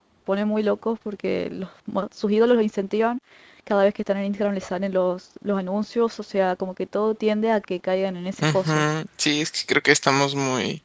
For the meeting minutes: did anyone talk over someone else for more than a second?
No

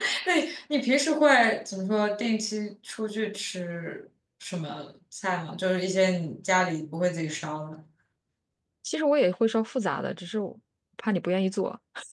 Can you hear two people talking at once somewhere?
No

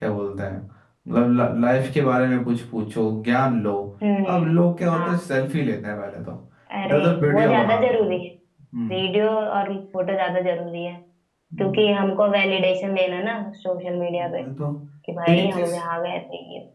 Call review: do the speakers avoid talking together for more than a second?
No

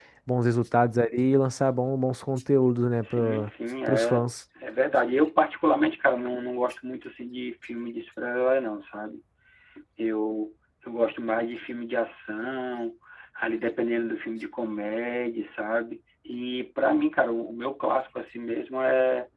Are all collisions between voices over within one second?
Yes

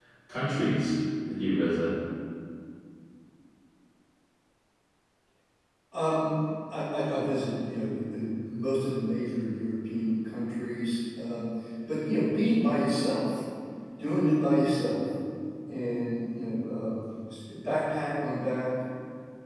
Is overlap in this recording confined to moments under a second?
Yes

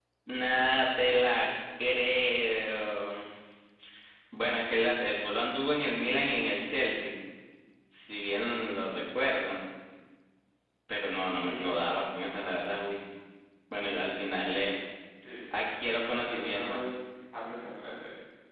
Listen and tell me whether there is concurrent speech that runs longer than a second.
Yes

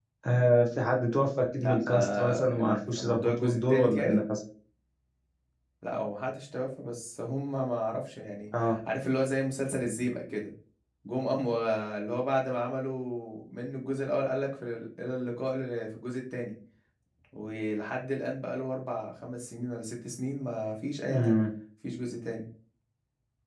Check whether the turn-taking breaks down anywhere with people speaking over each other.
Yes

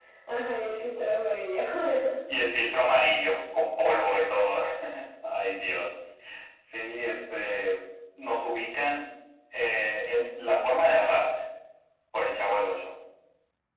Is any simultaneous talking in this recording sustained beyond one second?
No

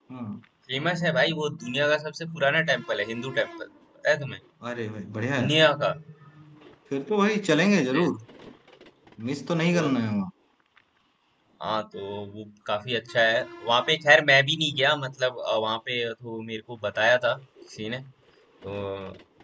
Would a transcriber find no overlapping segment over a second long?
Yes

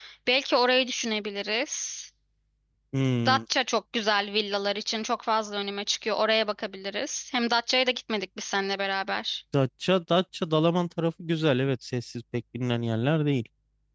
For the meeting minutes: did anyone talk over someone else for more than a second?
No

